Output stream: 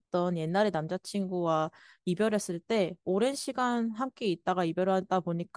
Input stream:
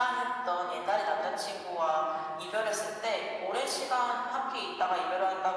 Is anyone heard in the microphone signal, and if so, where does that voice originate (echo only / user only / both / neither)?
echo only